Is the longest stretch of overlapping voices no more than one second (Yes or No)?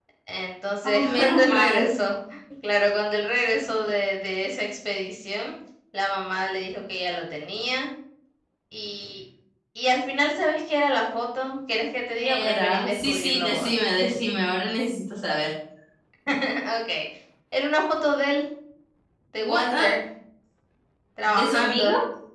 No